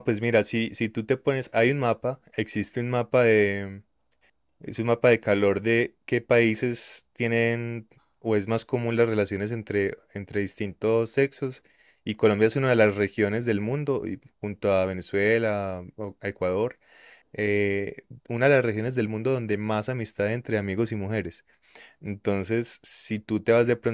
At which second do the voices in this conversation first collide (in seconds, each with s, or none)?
none